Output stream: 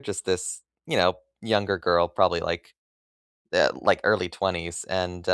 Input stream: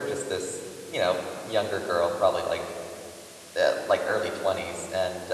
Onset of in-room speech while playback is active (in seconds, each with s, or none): none